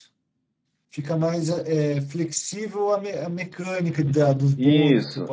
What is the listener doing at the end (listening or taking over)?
taking over